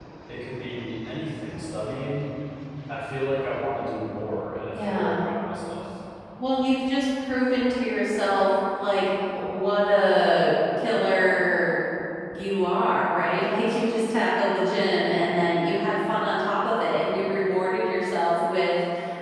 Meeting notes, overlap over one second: none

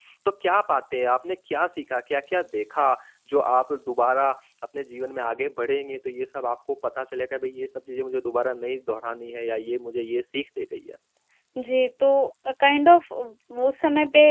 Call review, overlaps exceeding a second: none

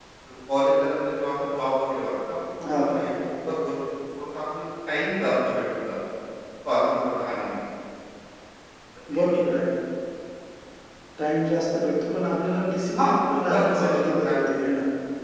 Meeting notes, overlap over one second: present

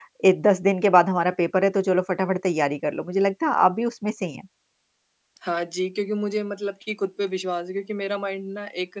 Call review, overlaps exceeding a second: none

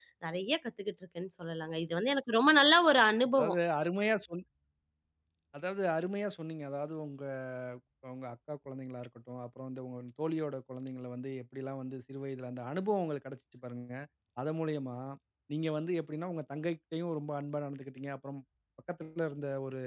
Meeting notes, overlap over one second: none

